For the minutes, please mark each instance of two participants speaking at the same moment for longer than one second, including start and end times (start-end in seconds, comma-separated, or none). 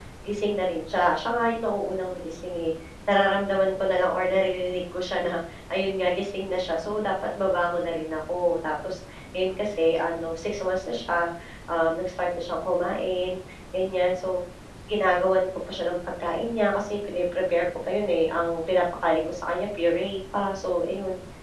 none